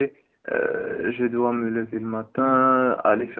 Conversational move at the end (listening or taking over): listening